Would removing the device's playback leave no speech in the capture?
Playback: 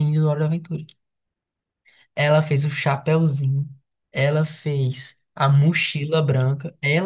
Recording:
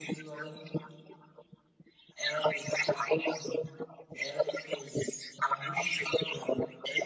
Yes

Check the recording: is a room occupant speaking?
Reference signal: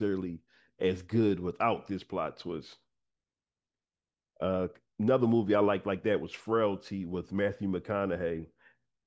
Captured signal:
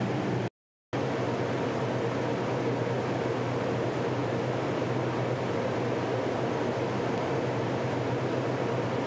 No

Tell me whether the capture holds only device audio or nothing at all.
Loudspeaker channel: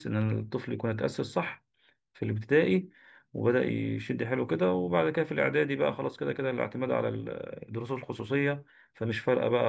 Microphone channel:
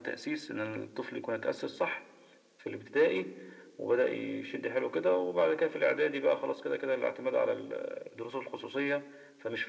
Yes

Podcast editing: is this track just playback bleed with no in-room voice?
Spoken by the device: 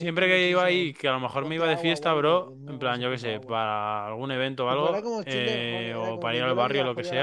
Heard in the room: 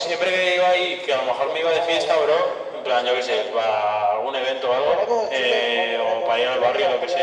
Yes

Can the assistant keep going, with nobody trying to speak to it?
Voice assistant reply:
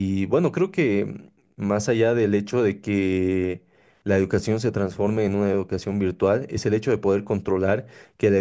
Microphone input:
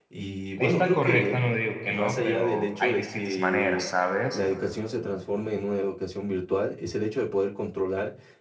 No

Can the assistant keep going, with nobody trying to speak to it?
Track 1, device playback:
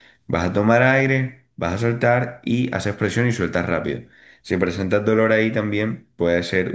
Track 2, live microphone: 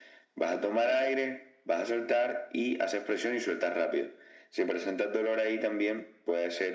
Yes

